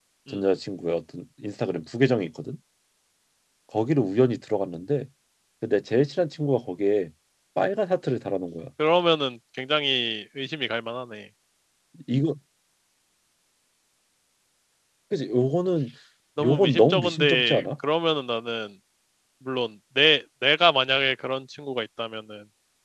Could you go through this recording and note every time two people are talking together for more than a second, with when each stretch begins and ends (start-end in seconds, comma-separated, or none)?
16.4-17.6